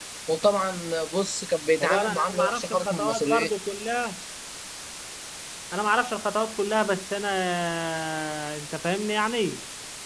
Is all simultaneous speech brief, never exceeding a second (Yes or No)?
No